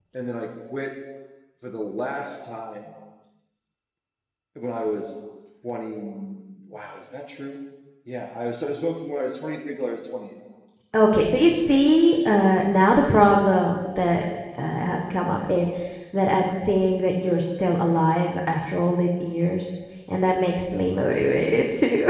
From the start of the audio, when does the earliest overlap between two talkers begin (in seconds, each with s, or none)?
none